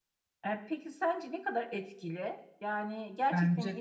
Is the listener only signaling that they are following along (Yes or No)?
Yes